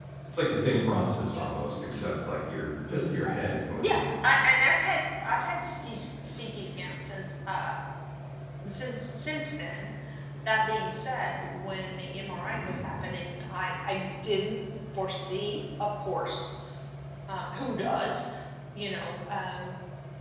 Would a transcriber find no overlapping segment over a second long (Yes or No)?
Yes